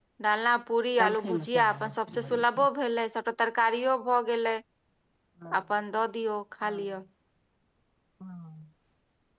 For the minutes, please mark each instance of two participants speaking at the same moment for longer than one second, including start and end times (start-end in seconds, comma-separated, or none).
1.0-2.7